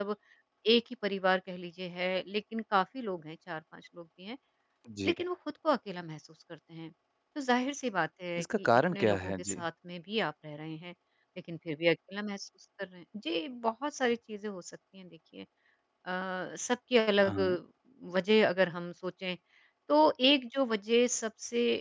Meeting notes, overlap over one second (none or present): present